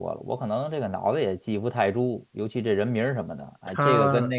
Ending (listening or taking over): listening